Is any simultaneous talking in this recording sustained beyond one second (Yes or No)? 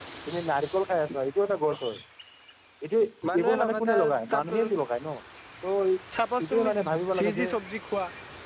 Yes